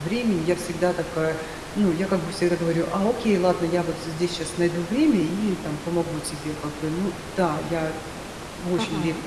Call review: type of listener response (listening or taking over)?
taking over